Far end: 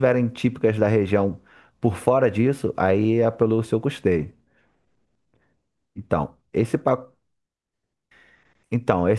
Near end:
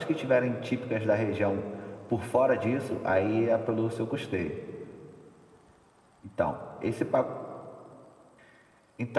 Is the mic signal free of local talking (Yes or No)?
Yes